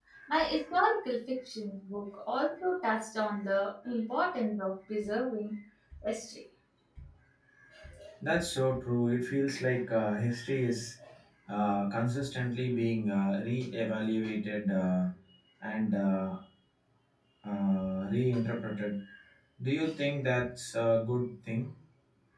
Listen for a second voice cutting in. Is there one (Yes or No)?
No